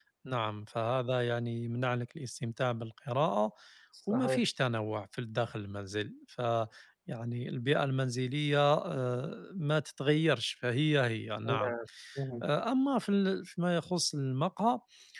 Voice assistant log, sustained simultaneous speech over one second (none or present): none